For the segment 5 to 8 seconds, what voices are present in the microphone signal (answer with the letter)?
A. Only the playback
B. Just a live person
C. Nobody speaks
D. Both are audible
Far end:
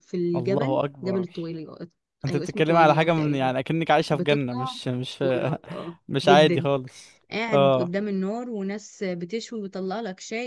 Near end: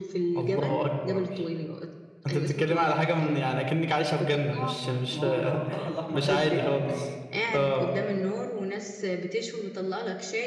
D